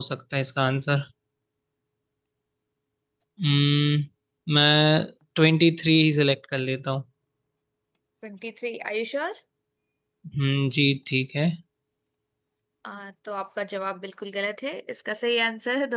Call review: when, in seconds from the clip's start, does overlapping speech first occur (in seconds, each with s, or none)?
none